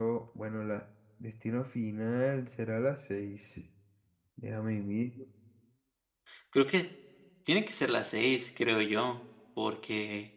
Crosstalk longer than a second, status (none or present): none